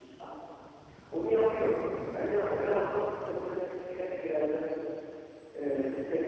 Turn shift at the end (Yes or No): No